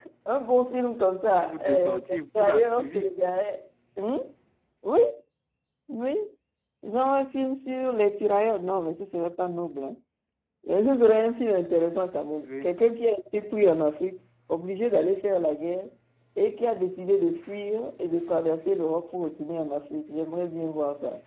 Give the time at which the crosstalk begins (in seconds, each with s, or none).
1.4 s